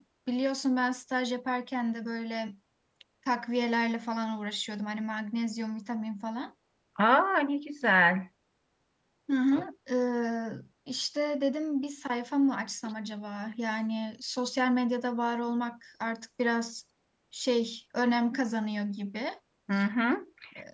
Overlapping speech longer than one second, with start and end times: none

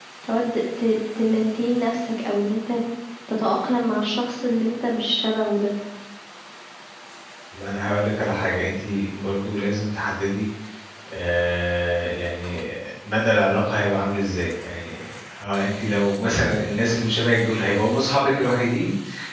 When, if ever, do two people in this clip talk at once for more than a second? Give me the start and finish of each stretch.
none

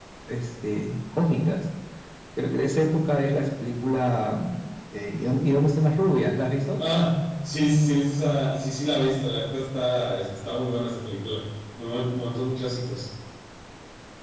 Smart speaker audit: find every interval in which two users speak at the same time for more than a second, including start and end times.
none

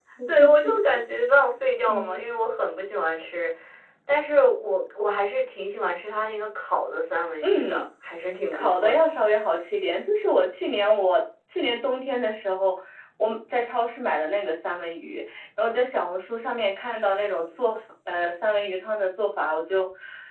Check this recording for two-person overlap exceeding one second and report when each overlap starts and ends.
none

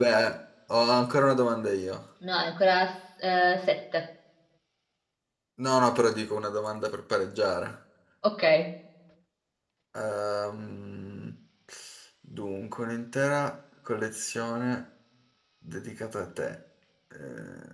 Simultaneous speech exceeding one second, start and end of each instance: none

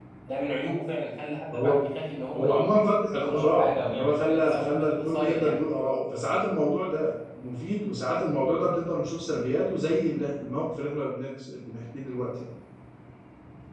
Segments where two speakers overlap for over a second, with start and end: 3.2-5.6

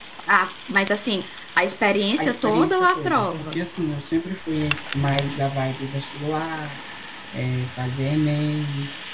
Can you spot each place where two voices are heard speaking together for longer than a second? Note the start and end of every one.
2.2-3.6

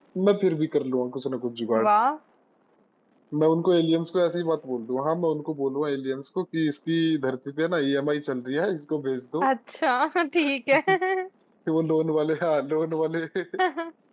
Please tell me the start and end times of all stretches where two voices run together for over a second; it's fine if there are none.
none

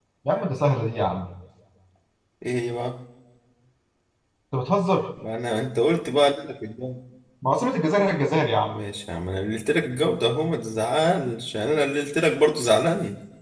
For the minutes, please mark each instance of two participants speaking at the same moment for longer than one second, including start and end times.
none

